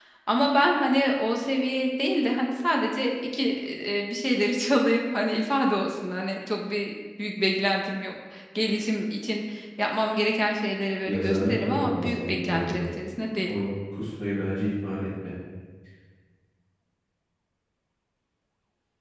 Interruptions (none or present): present